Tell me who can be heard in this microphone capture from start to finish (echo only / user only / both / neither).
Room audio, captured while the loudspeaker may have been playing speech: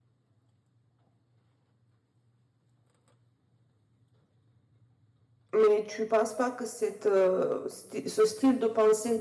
user only